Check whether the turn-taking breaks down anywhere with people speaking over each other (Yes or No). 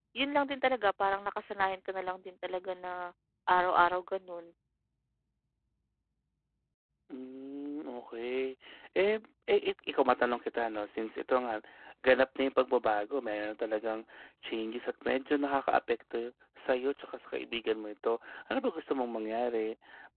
No